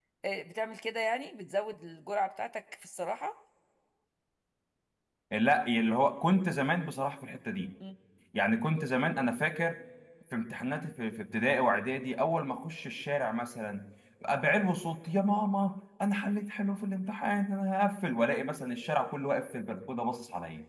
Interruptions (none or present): none